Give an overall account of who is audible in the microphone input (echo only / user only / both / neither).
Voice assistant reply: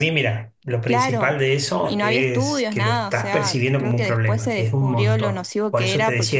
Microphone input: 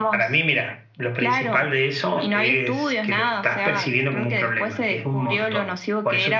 echo only